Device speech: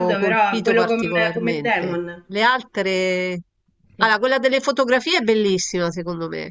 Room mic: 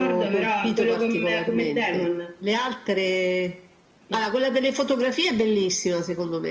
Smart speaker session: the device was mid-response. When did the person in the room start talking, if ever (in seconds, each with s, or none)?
none